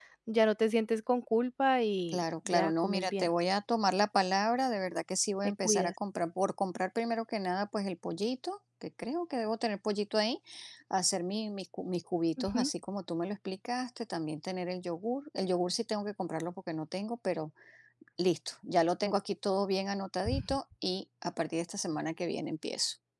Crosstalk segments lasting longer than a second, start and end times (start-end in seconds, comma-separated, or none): 2.1-3.3